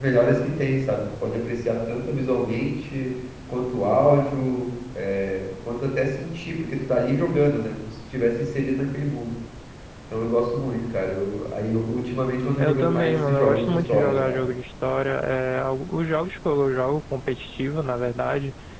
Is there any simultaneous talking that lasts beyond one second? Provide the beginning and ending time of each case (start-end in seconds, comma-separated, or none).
12.6-14.4